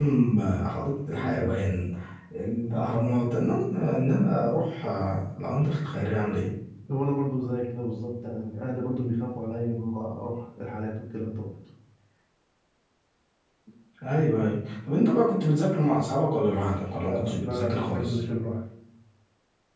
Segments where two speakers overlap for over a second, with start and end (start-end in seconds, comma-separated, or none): 17.0-18.2